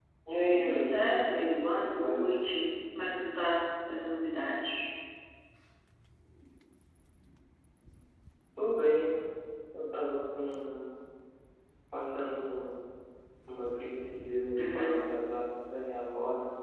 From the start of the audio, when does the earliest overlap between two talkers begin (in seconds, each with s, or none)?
0.5 s